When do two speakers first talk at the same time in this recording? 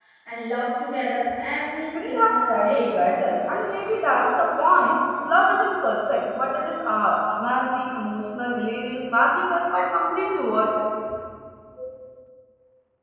1.9 s

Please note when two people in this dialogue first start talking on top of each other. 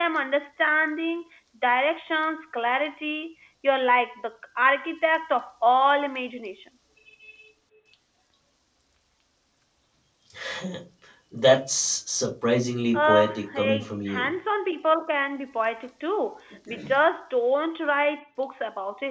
12.9 s

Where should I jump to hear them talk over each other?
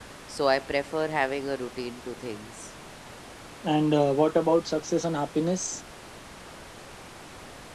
none

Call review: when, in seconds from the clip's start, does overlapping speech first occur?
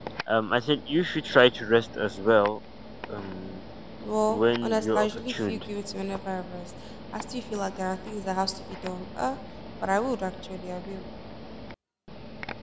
4.3 s

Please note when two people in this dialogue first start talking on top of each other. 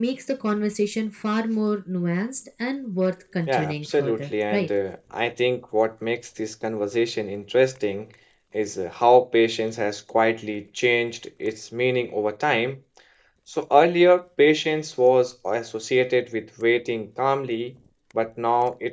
3.5 s

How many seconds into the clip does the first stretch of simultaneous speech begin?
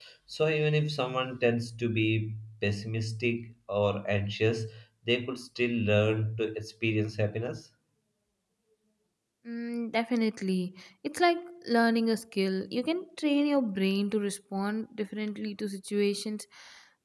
none

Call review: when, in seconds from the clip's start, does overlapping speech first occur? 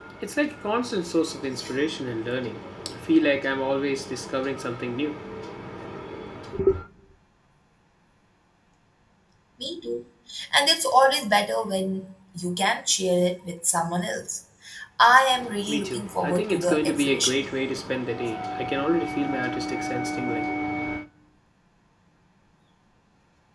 15.7 s

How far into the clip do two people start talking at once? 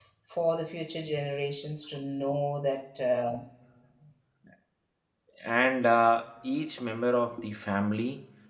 none

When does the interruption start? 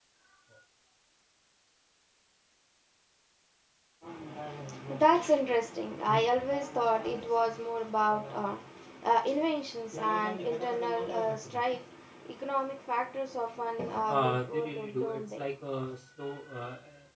14.1 s

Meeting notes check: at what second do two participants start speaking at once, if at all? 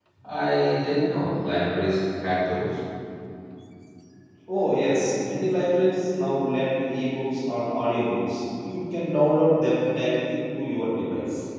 none

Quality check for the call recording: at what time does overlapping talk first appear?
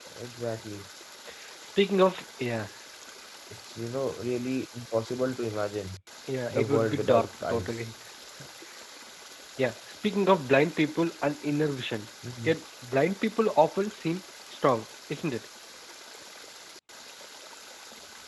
6.5 s

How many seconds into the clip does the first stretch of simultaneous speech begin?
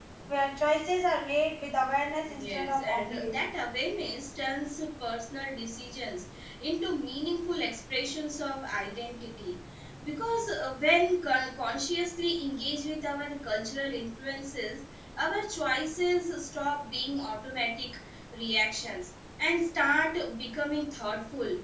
2.2 s

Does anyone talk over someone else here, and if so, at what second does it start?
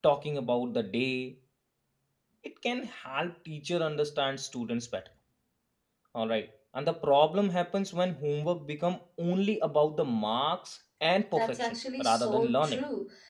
11.3 s

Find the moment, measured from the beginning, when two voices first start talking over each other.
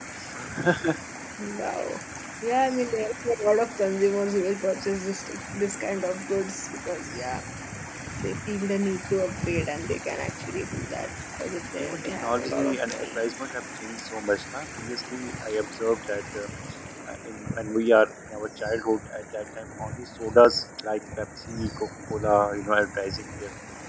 11.8 s

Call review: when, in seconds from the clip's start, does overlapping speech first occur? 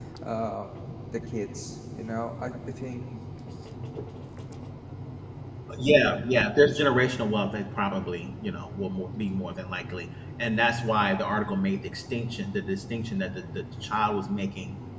none

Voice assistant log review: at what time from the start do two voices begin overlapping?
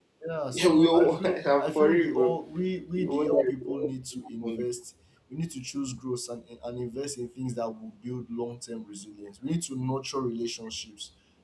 0.5 s

